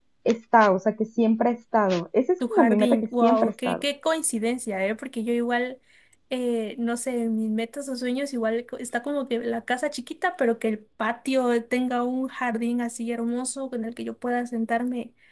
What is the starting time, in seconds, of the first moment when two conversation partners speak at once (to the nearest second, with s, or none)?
2 s